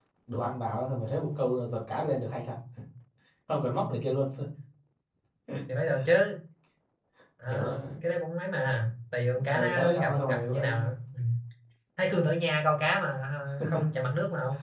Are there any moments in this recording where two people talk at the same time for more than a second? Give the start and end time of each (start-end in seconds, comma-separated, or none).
9.5-10.8